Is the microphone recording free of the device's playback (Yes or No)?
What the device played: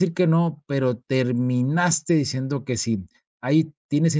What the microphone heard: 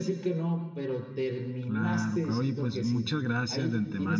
No